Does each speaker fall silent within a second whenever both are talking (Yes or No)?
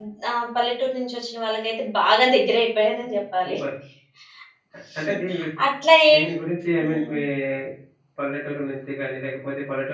Yes